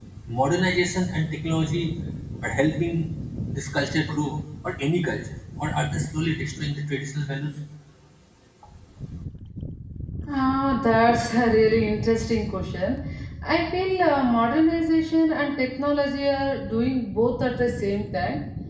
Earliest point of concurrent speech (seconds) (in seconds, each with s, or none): none